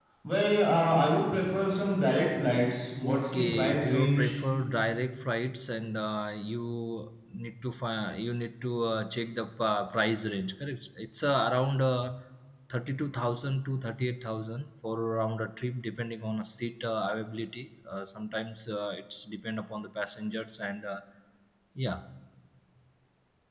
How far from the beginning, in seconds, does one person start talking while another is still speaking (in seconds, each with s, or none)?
3.0 s